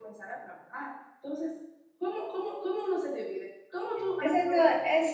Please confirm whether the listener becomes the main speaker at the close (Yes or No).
Yes